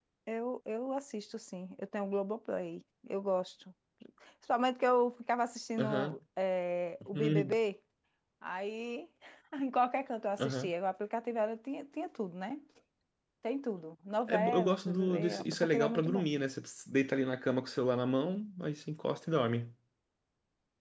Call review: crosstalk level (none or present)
present